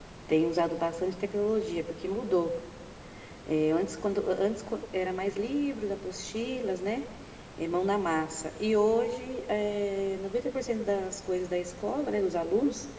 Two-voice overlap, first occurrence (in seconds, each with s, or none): none